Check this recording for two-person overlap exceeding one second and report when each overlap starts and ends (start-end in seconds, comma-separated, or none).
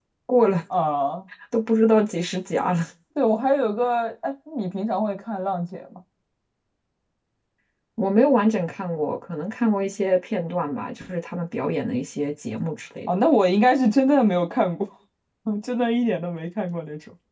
none